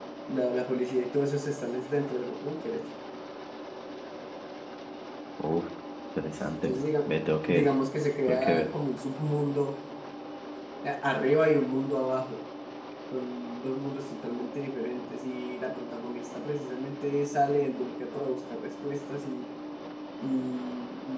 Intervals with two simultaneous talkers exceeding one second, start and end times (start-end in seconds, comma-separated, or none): none